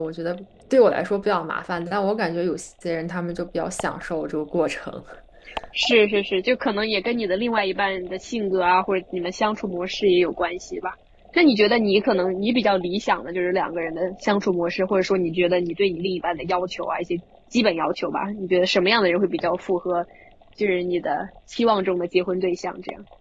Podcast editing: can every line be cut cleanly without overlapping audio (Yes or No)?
Yes